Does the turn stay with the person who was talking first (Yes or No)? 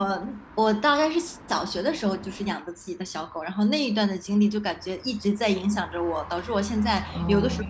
Yes